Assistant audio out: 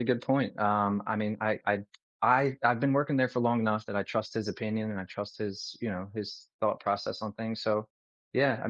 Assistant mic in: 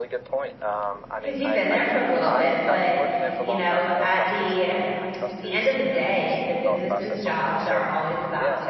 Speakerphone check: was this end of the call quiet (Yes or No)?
No